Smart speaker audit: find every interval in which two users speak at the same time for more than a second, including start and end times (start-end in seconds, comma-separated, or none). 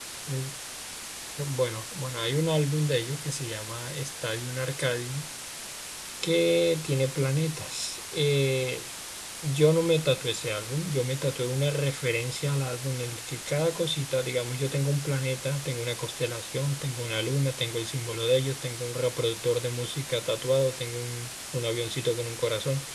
none